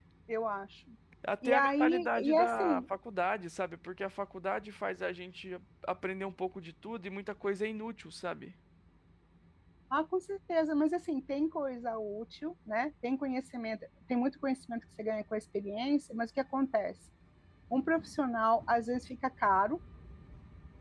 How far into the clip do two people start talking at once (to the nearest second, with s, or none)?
1 s